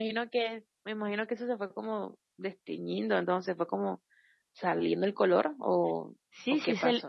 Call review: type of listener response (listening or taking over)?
taking over